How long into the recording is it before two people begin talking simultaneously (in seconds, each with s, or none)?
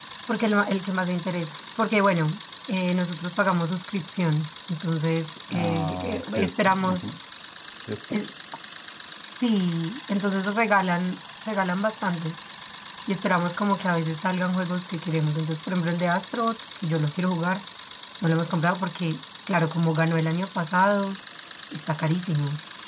5.5 s